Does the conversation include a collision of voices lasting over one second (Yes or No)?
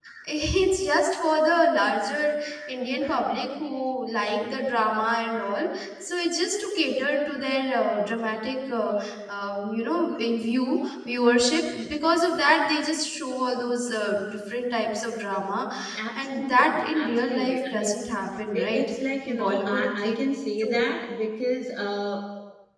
Yes